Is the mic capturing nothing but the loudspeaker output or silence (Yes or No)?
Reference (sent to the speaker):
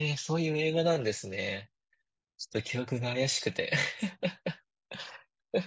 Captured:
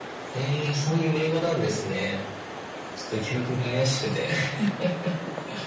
Yes